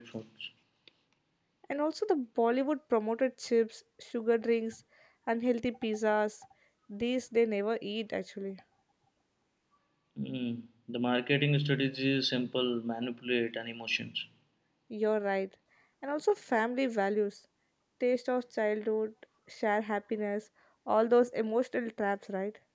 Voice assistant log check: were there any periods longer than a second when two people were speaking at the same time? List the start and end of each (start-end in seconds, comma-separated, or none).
none